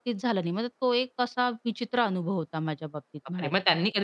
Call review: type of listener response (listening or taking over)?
taking over